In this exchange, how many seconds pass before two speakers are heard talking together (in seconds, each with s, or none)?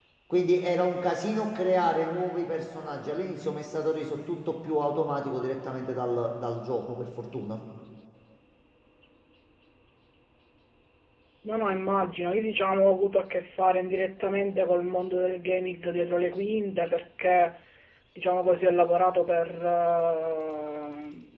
none